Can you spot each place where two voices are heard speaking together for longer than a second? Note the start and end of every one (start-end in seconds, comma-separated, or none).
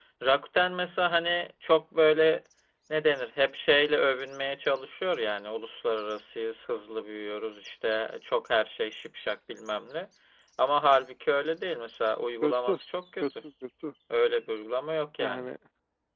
none